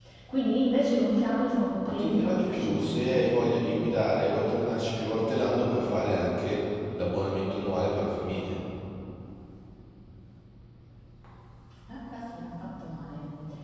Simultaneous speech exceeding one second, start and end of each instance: 1.8-3.9

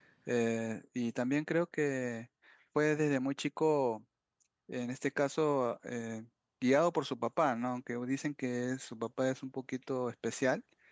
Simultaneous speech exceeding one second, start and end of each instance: none

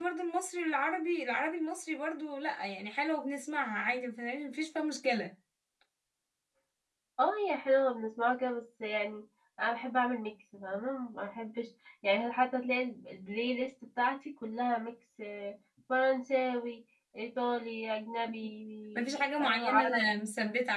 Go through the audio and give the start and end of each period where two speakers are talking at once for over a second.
18.9-20.2

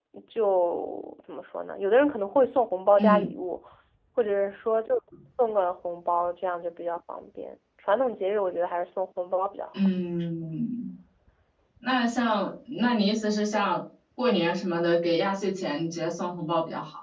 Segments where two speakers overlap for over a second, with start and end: none

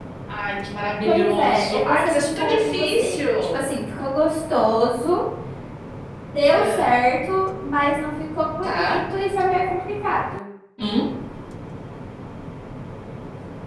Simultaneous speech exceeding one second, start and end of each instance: 1.0-3.7

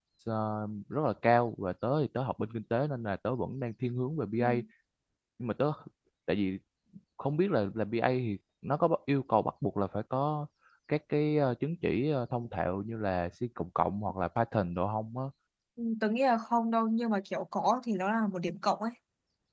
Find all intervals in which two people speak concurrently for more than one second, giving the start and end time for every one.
none

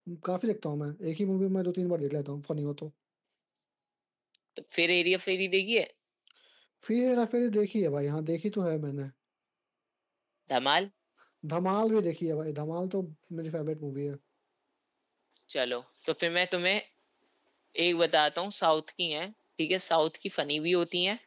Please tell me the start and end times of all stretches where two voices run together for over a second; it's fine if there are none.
none

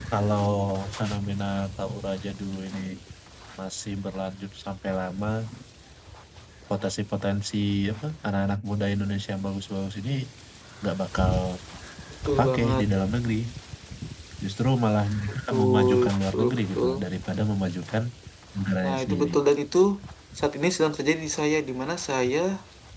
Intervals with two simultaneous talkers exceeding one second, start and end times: 15.5-16.9

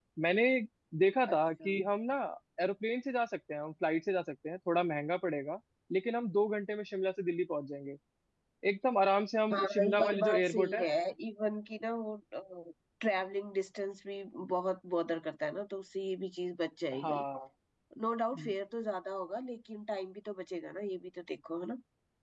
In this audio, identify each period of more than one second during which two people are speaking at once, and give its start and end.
9.5-10.9

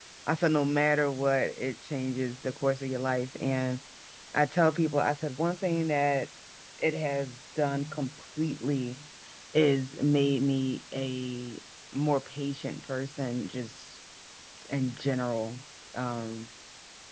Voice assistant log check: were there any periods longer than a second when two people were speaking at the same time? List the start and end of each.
none

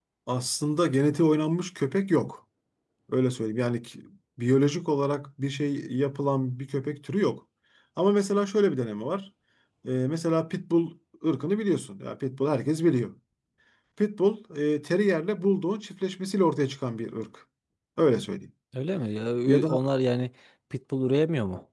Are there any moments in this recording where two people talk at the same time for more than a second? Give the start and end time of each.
none

